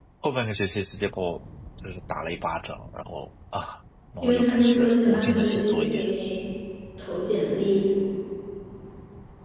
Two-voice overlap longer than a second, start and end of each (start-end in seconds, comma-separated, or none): 4.2-6.1